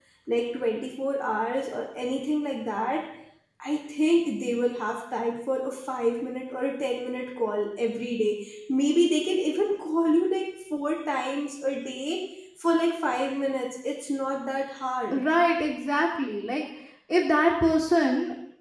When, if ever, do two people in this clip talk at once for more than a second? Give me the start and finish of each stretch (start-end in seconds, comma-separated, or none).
none